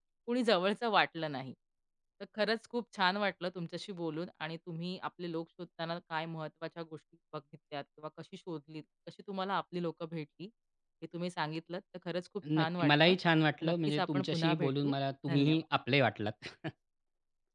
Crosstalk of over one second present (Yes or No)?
Yes